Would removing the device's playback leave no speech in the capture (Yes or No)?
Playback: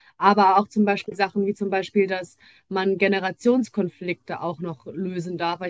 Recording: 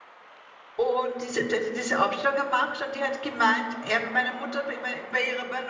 No